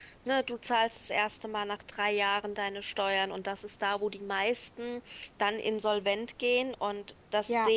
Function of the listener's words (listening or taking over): taking over